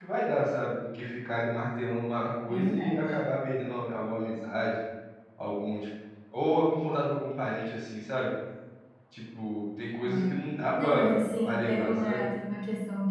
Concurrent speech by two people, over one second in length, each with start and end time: 10.8-12.3

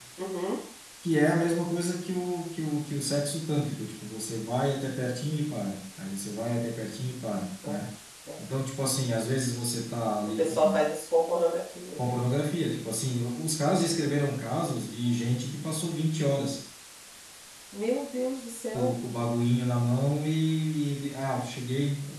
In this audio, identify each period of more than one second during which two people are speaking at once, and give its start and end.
none

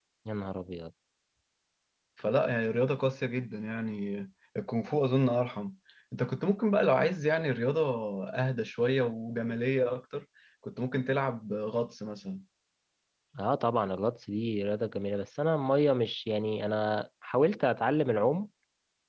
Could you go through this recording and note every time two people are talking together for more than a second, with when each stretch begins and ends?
none

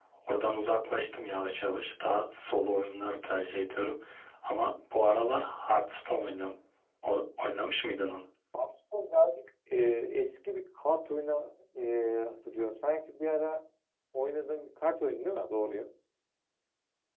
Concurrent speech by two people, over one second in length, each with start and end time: none

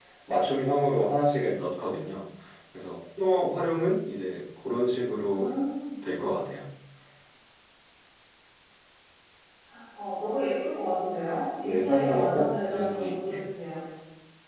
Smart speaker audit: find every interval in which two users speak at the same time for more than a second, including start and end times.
11.6-13.5

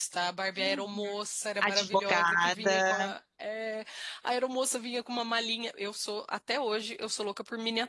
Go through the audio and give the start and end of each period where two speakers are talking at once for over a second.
1.6-3.1

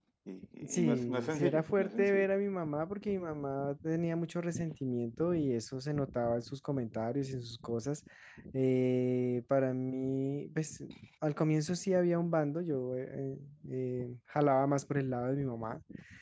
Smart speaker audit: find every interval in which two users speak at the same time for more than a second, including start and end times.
0.6-2.3

